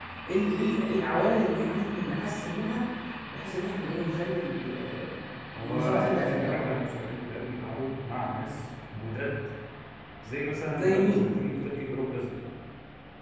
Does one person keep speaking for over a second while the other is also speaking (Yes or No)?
Yes